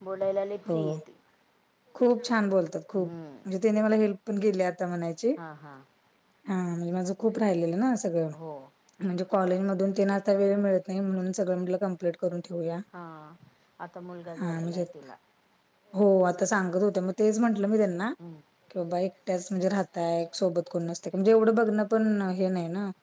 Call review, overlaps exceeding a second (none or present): none